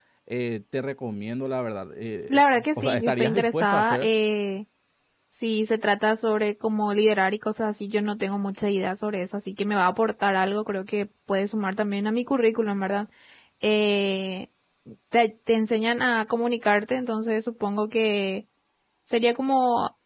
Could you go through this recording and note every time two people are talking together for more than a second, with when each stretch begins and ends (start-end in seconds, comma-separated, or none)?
2.3-4.1